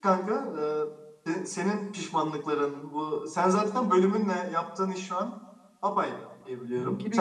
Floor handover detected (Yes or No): Yes